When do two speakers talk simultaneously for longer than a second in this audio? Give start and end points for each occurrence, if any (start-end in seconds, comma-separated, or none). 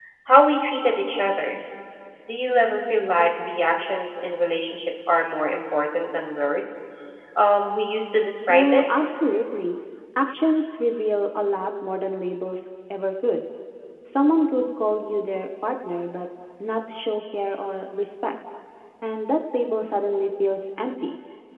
none